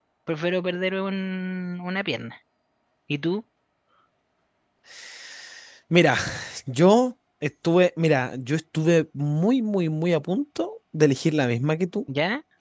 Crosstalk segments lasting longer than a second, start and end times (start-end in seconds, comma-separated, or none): none